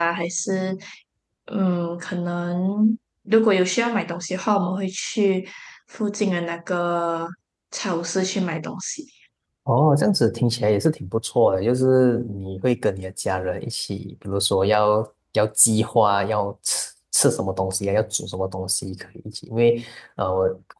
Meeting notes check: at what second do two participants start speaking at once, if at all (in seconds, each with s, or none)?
none